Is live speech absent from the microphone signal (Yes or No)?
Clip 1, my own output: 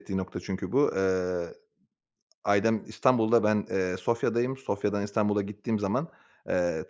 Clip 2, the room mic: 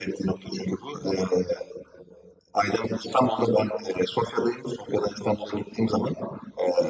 Yes